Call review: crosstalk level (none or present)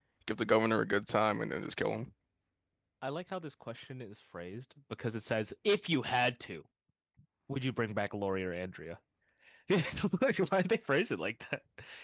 none